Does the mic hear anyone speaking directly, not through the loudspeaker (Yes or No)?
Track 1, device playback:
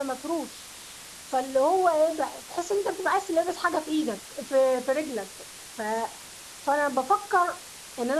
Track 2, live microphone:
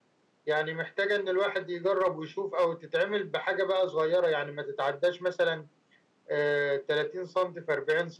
Yes